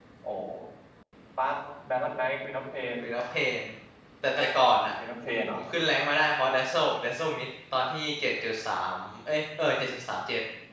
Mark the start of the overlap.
none

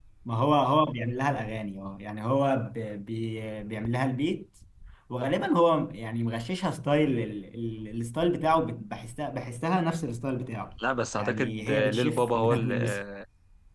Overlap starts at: 11.2 s

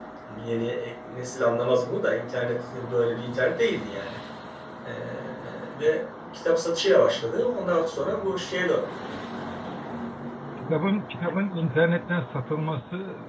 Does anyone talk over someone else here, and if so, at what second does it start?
none

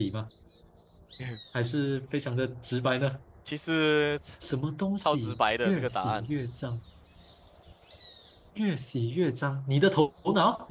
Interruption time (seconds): 5.0 s

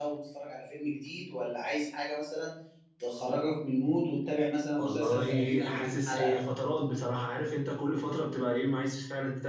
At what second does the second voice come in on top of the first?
4.8 s

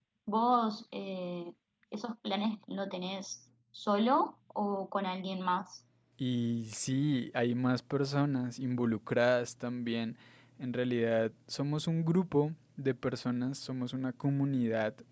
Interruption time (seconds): none

